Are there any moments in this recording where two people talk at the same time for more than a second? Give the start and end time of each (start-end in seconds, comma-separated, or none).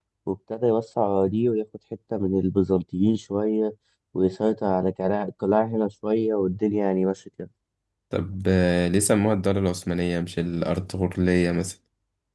none